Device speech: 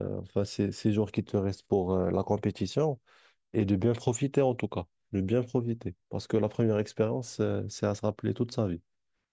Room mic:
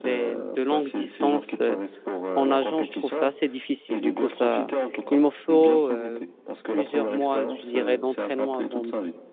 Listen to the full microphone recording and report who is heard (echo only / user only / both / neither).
both